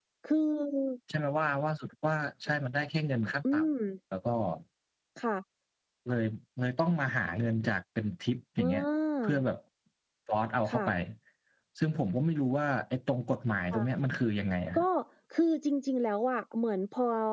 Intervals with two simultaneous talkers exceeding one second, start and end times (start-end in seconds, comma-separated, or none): none